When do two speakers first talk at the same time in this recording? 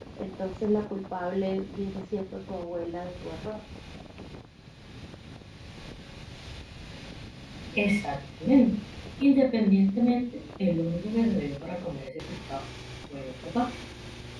none

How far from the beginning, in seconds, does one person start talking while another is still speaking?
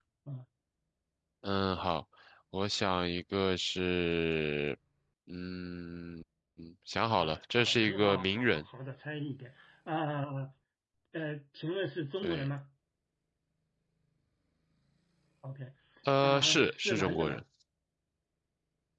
7.2 s

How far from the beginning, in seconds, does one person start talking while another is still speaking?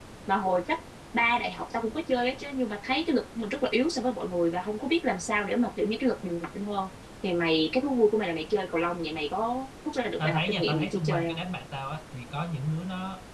10.2 s

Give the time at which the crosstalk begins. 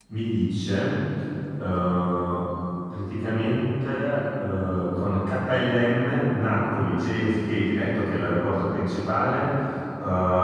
none

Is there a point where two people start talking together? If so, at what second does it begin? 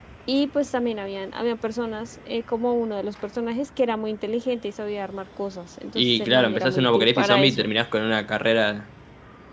6.0 s

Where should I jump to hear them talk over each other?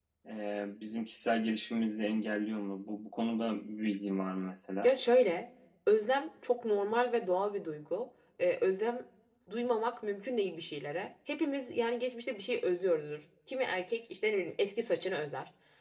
none

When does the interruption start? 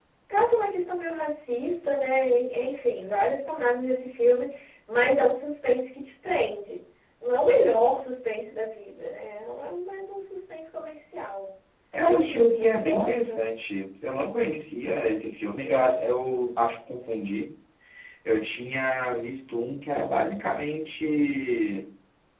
12.0 s

